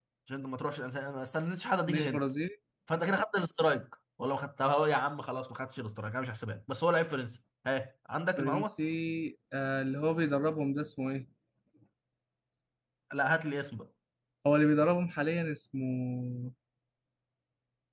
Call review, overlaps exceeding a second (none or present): none